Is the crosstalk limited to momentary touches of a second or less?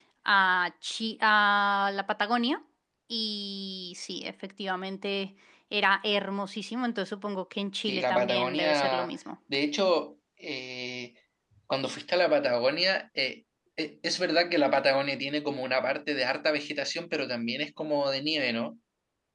No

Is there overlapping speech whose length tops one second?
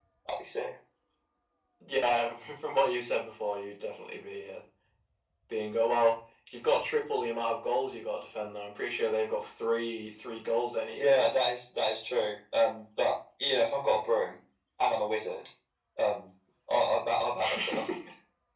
No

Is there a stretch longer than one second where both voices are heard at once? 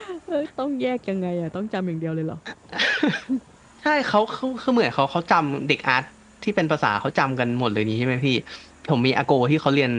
No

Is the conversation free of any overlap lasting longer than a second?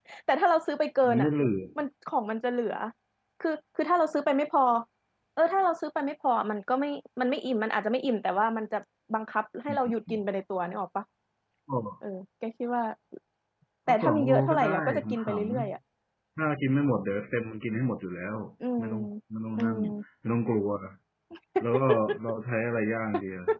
No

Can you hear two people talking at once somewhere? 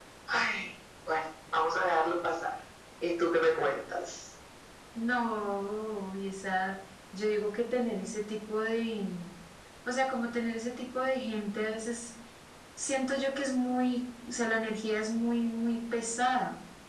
No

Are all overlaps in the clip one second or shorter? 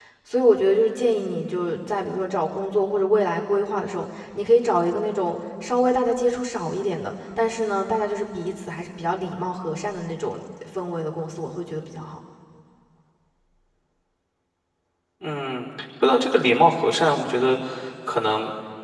Yes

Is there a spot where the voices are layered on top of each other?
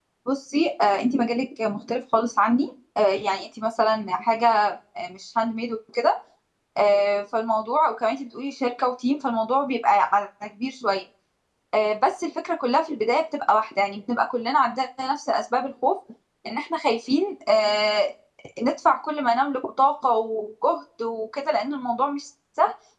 No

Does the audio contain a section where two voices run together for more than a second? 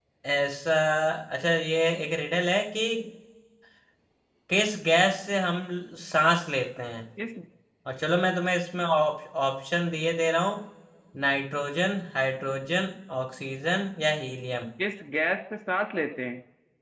No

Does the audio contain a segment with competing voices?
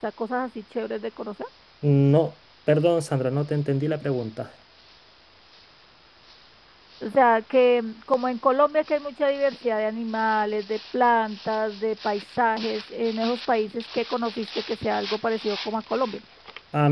No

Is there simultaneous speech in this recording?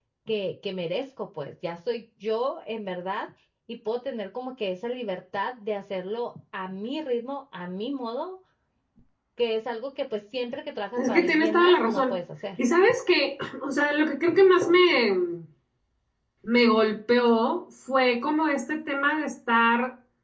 Yes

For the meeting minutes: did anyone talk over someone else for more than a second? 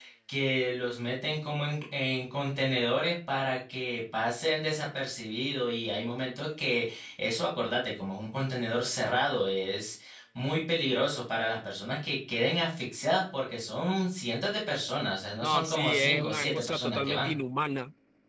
Yes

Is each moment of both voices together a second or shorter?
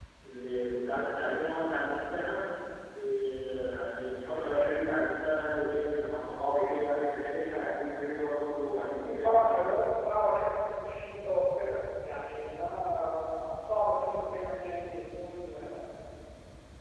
Yes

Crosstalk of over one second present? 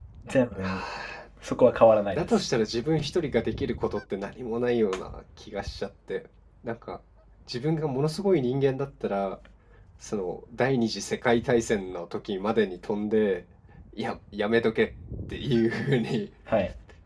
No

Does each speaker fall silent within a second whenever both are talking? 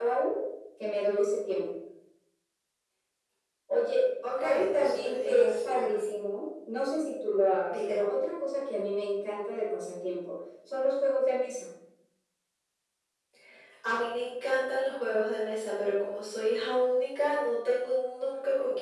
No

